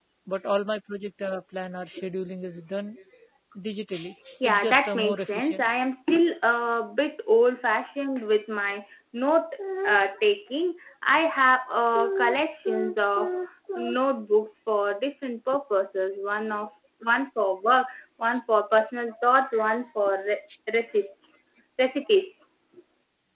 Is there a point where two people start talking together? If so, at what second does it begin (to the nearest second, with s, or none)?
4 s